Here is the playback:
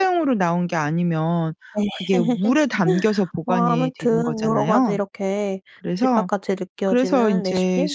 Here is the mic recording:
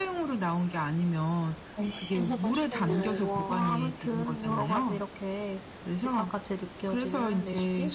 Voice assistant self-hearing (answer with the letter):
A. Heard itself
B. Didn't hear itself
A